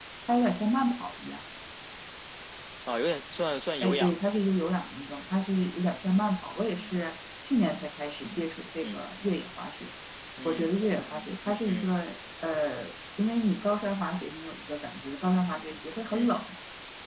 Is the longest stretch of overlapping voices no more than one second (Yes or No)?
Yes